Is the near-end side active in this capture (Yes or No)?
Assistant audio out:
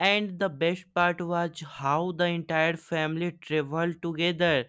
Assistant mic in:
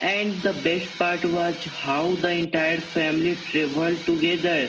No